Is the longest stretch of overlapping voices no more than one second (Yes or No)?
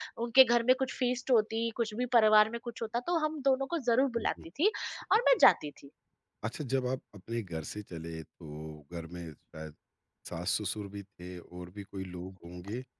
Yes